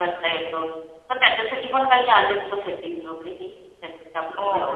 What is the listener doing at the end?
taking over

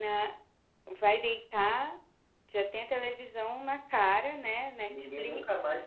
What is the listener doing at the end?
taking over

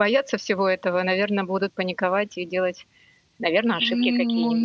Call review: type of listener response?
taking over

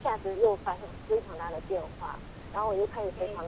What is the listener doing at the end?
listening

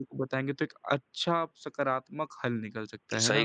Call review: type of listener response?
taking over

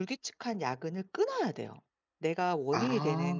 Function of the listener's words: listening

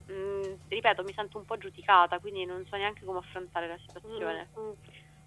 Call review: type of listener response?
taking over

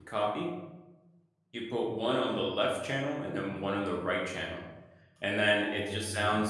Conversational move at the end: listening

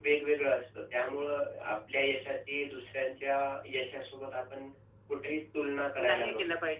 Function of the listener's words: taking over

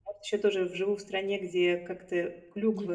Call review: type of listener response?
listening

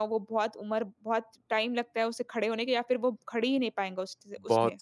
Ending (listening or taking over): taking over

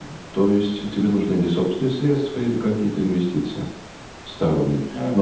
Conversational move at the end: listening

